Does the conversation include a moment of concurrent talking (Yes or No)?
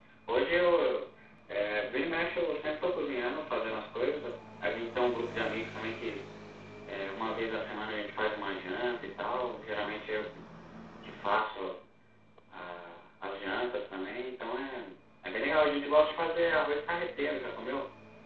No